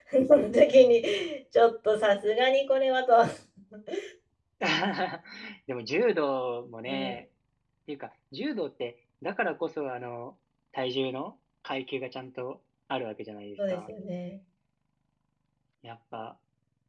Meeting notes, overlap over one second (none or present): none